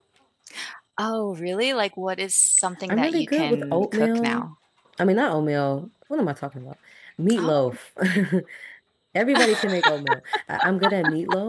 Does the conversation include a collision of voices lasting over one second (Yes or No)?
Yes